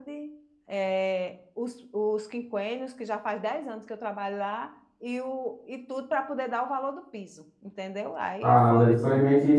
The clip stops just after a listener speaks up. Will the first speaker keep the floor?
No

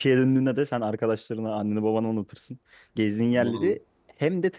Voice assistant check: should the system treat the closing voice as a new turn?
No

